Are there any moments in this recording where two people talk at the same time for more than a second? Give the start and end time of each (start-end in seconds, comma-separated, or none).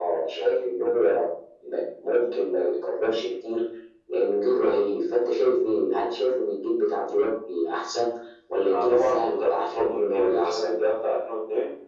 8.7-10.8